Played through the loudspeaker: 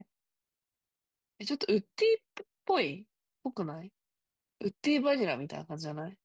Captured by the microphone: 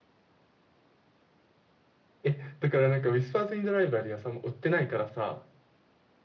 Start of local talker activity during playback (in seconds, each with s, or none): 2.2 s